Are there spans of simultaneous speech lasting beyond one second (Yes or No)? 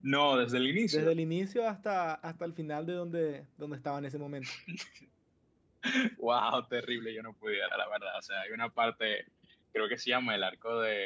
No